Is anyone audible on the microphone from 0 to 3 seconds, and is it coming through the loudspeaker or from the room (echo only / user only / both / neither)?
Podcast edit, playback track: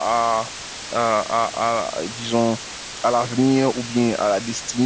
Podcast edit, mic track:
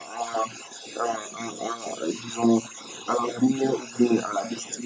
echo only